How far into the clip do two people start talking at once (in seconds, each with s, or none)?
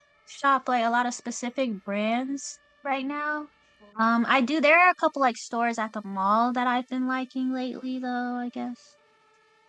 none